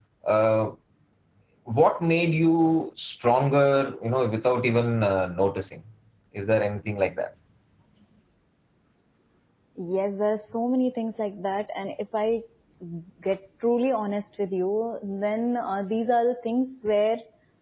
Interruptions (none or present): none